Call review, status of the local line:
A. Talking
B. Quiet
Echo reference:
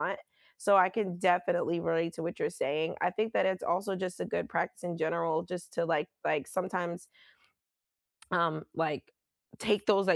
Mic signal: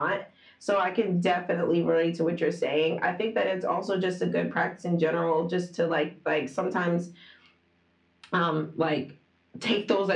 B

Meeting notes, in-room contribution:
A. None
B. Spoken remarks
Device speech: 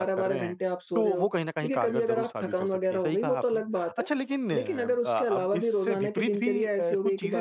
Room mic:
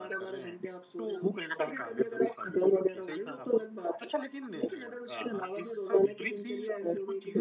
A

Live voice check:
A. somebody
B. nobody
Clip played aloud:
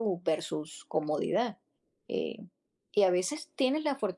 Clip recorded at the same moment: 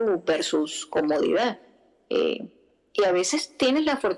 B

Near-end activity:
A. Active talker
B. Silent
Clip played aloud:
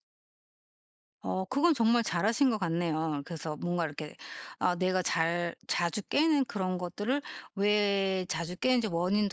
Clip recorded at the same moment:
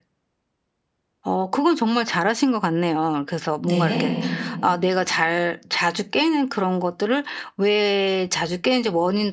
A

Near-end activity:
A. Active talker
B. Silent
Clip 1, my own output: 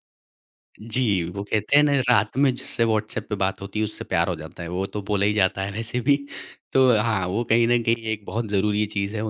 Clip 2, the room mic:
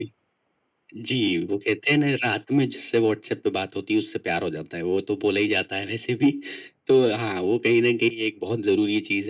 B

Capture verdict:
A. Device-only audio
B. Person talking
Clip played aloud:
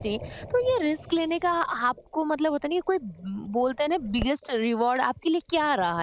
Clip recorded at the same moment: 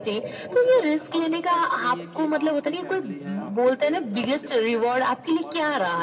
B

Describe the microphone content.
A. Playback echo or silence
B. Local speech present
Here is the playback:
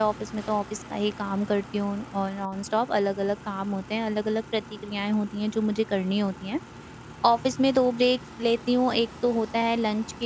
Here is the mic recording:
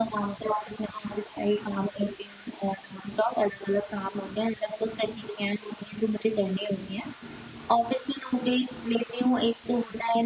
A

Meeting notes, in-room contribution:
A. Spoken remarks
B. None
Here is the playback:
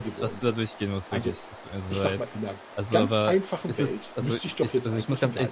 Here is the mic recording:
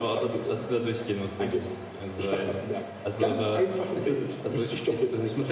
B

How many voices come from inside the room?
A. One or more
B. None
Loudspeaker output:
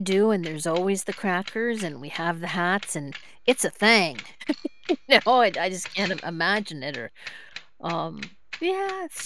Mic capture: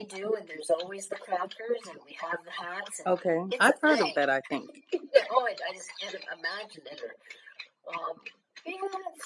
A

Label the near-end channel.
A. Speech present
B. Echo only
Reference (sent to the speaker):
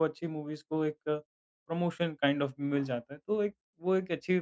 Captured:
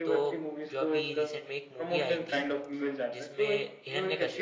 A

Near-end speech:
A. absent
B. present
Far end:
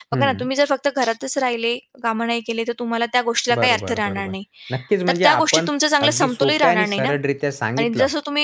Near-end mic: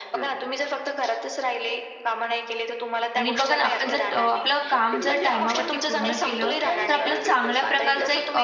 B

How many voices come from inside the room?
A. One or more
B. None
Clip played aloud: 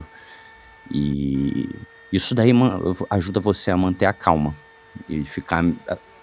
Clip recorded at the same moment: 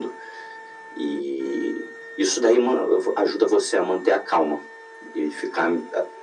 B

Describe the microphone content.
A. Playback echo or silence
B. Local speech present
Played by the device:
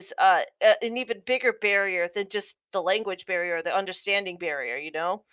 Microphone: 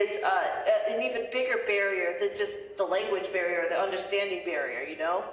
A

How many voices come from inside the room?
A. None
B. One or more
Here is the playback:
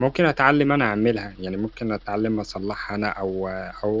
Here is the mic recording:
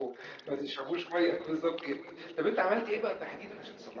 B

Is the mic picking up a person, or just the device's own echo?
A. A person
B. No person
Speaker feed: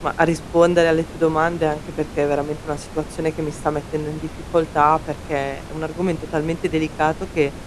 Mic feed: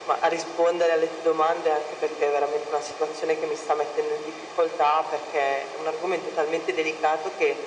B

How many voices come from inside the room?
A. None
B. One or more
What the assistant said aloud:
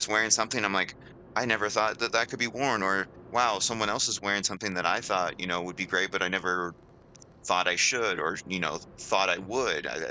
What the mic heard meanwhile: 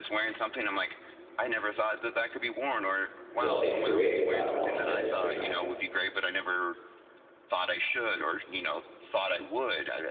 B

